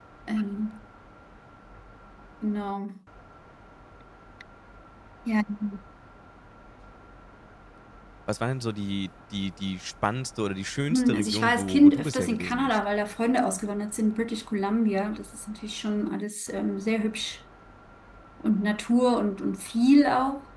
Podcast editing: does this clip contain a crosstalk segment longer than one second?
Yes, from 10.9 s

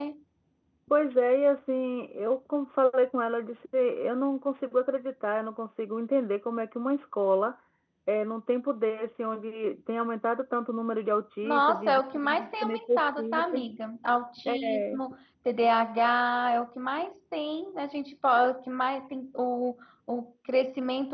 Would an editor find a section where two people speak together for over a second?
Yes, from 11.4 s

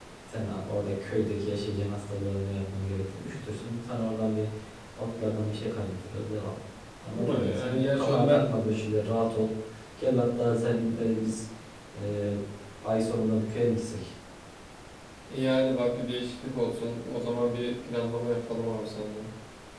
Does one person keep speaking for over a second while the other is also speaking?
Yes, from 7.1 s

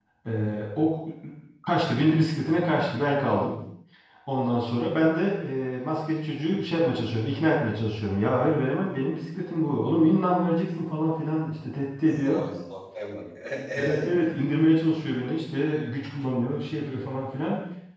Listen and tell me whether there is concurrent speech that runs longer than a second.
No

